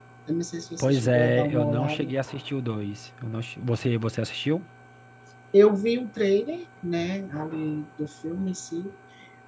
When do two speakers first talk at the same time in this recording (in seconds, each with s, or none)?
0.8 s